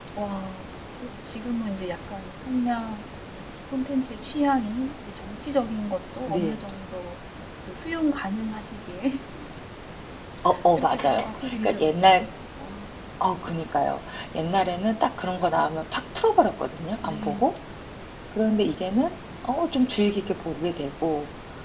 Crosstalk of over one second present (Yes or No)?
Yes